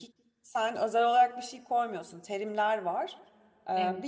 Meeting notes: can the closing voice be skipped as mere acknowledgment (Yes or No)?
Yes